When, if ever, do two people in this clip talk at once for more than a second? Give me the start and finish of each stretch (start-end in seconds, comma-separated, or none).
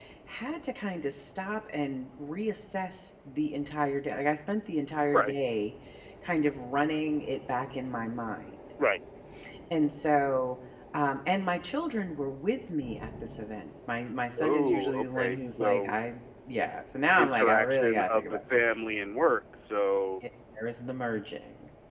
14.4-15.9, 17.1-18.4